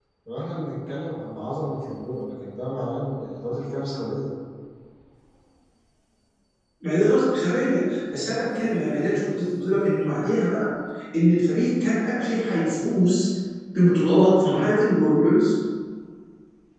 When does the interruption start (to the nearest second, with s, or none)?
none